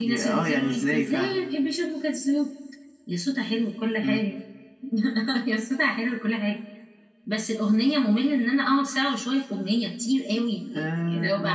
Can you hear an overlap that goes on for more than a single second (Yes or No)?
Yes